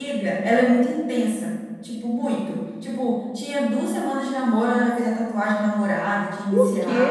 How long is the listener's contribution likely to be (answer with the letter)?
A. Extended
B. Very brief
A